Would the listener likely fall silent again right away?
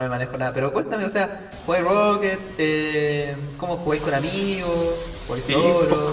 No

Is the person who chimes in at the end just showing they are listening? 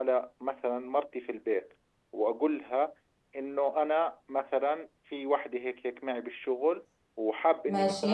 Yes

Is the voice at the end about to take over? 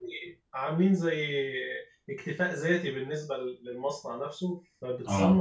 No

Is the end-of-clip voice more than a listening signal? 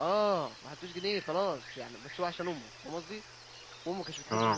No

